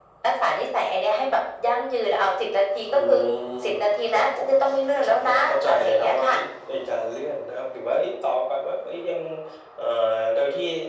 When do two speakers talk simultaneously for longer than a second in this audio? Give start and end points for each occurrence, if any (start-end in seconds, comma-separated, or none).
5.0-6.3